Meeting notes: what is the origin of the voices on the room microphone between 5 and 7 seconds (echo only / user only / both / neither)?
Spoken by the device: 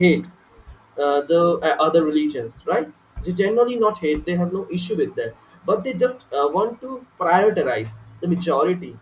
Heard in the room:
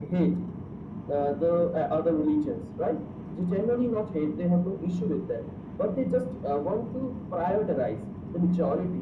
echo only